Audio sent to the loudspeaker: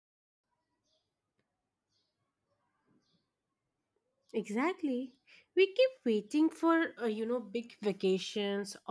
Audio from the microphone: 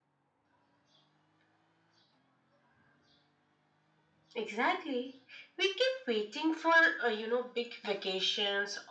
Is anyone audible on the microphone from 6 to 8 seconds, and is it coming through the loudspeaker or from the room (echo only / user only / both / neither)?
echo only